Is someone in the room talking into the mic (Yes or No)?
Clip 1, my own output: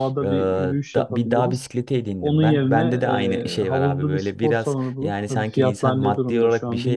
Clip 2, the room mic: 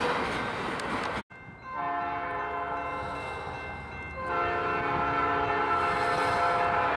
No